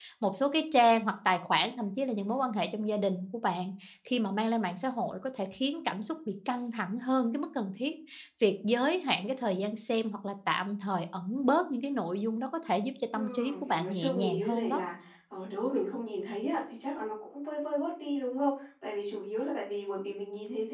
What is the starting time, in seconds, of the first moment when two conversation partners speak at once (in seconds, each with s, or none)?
13.1 s